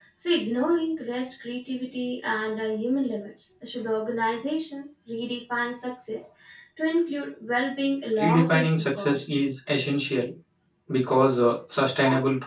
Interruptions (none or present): present